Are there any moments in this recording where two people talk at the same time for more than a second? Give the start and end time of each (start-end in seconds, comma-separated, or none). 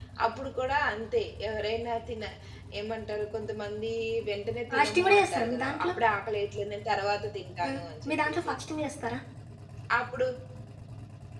4.7-5.9